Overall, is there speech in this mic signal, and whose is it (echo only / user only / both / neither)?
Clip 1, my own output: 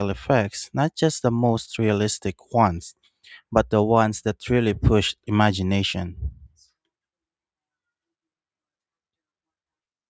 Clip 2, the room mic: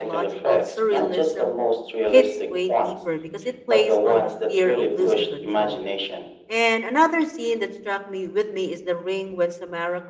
both